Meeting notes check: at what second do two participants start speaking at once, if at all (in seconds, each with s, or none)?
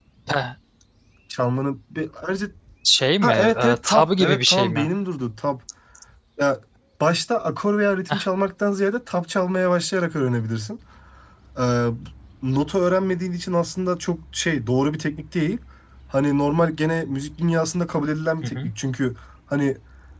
3.2 s